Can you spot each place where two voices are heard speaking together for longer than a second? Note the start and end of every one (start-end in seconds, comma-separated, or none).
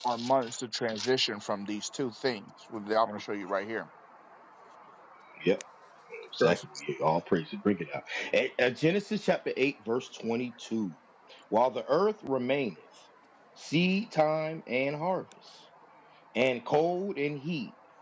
none